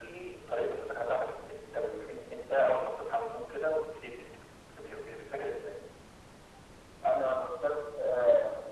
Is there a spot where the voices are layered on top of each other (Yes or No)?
No